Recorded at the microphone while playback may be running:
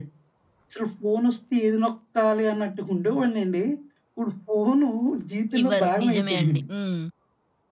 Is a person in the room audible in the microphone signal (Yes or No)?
Yes